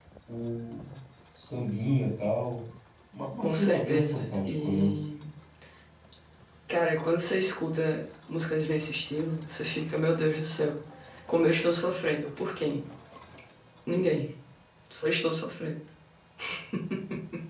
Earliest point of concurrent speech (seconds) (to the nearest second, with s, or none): 3 s